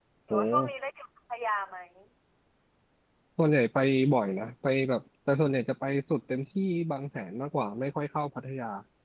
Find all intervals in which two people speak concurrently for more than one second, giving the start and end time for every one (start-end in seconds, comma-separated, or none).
none